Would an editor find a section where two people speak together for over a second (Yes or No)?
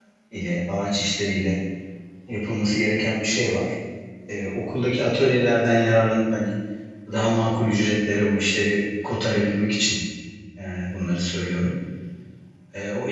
No